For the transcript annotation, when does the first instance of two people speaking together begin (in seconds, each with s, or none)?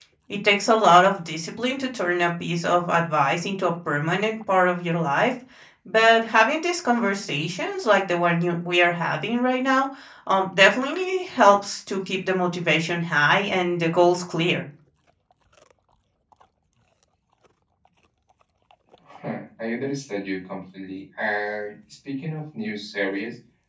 none